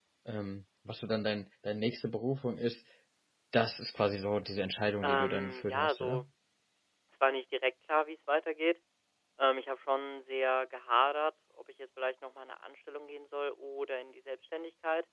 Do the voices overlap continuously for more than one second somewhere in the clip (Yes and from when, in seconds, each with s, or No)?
Yes, from 5.0 s